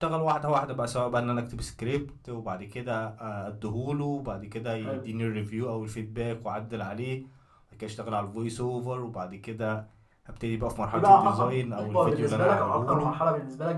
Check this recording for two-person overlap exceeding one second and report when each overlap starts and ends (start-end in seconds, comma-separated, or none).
10.9-13.1